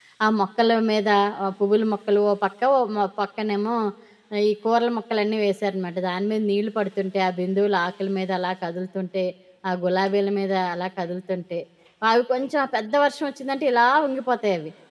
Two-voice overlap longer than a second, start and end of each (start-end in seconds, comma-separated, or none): none